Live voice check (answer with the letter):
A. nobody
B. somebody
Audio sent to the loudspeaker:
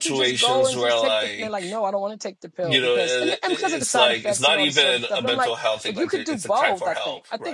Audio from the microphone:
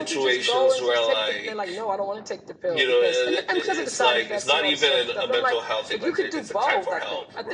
A